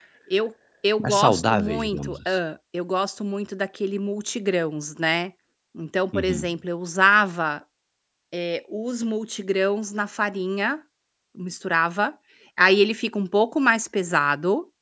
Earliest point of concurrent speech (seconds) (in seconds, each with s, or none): 1.0 s